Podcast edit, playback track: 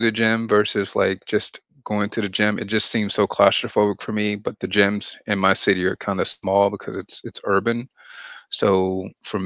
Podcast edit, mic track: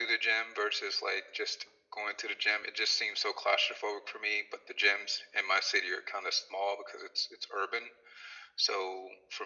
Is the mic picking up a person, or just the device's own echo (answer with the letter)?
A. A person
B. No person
B